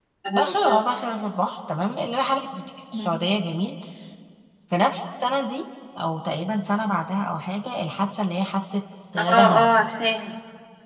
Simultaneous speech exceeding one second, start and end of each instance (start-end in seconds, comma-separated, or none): none